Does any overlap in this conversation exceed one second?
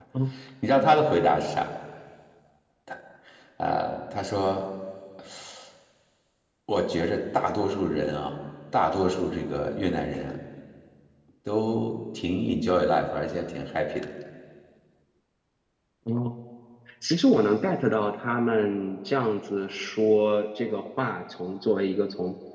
No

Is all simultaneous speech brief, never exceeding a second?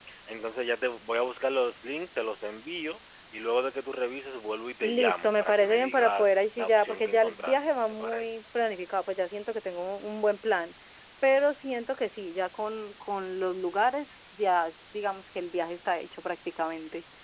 No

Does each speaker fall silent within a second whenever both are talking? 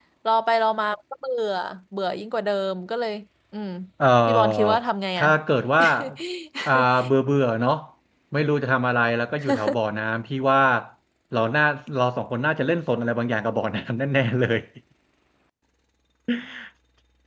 Yes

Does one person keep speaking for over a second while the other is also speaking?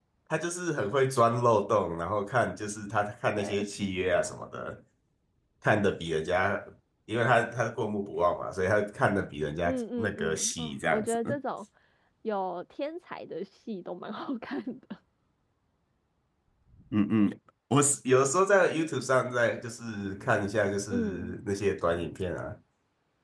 Yes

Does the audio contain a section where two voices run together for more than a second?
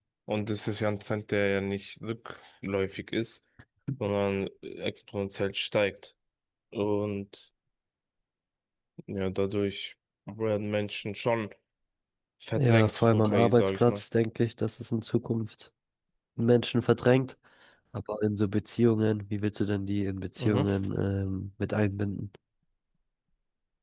Yes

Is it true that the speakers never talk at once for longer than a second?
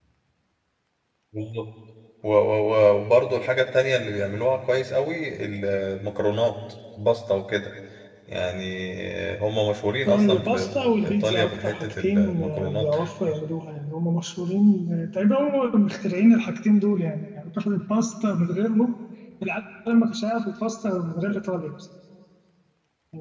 No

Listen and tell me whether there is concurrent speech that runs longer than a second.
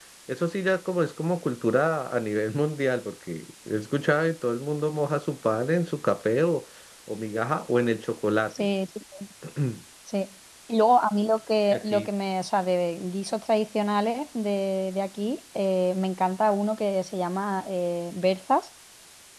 No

